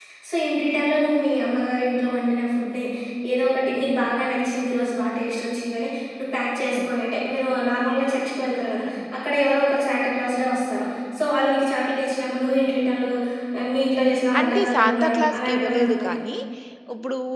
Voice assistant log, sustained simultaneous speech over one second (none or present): present